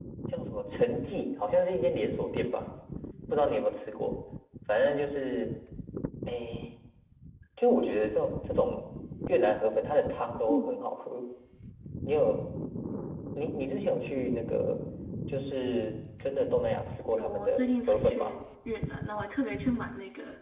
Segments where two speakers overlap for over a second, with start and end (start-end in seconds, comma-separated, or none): 17.1-18.4